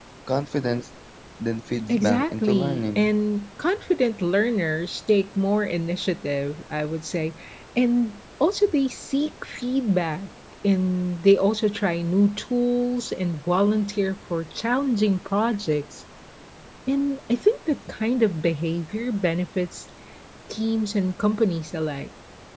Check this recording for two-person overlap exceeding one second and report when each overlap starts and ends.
1.9-3.1

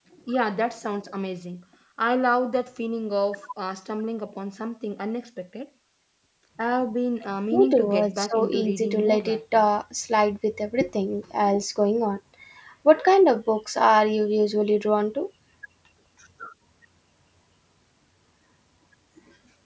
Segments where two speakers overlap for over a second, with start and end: 7.5-9.7

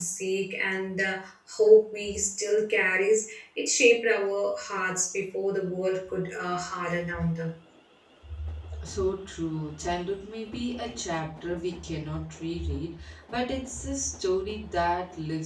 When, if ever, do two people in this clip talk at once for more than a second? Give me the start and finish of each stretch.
none

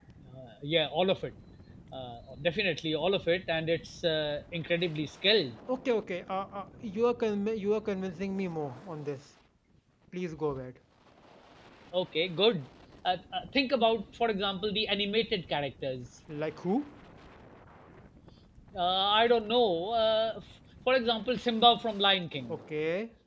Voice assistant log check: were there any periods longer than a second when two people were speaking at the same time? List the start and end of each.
none

